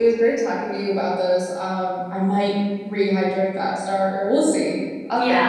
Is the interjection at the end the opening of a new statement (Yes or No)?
Yes